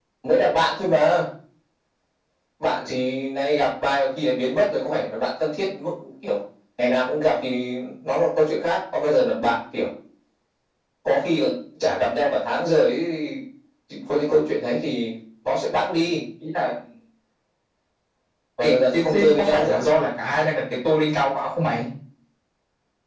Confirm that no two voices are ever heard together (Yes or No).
No